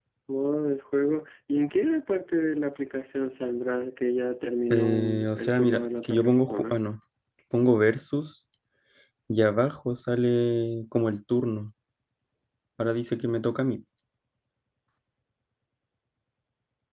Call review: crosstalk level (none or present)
present